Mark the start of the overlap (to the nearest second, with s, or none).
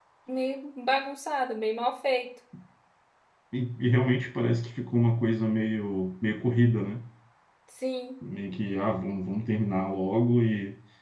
none